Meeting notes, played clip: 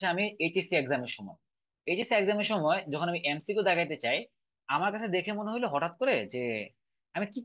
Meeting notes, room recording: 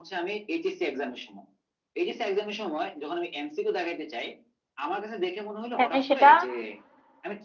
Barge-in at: 6 s

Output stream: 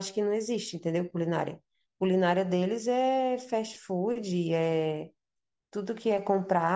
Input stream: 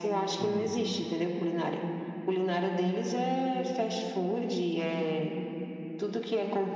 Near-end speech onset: 0 s

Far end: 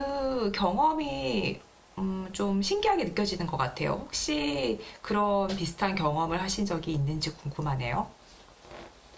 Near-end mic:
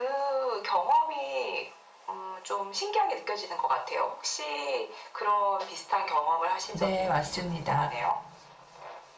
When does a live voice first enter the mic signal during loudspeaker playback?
7 s

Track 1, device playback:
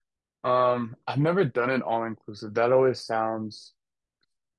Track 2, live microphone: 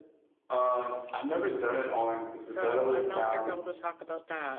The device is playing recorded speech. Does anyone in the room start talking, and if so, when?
2 s

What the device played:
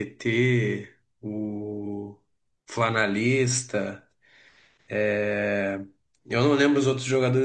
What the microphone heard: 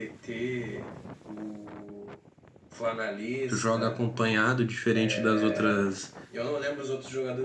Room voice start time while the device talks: 3 s

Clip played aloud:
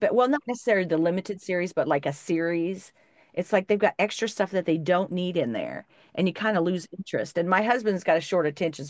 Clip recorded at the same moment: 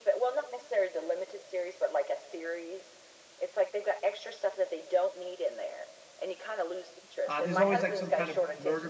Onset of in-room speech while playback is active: 7 s

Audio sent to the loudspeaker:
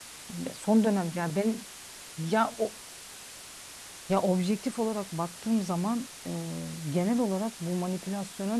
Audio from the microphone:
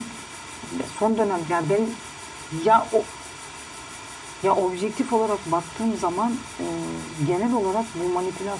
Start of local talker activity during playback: none

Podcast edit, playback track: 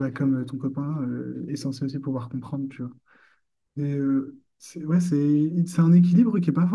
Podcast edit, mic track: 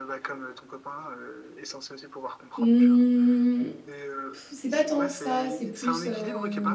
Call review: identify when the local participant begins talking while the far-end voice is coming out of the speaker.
3 s

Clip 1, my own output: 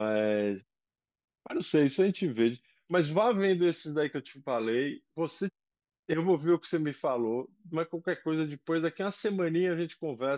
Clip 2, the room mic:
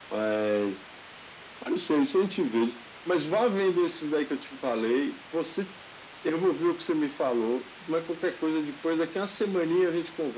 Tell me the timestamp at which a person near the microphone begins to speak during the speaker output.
none

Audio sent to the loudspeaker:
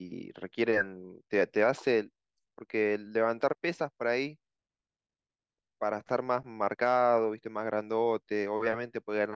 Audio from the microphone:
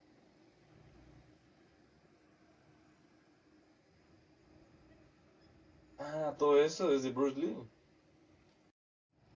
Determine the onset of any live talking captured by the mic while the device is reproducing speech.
6 s

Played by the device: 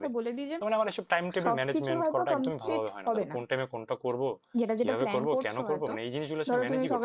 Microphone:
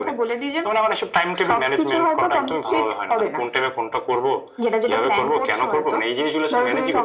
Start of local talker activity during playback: none

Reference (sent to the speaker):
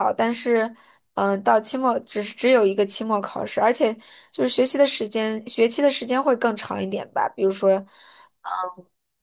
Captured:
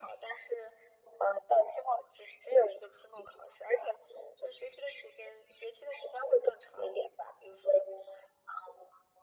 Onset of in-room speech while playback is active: none

